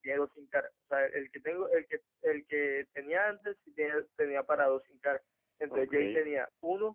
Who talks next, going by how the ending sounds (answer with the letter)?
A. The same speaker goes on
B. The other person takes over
A